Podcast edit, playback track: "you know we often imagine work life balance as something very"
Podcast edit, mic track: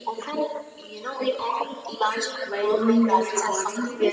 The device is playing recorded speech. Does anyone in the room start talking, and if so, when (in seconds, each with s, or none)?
2.4 s